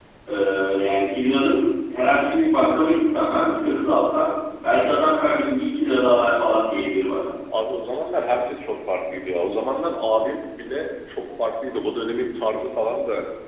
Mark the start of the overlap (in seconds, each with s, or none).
none